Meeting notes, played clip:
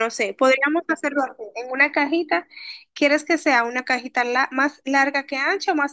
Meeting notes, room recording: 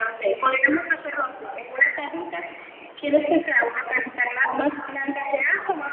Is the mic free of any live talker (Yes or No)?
Yes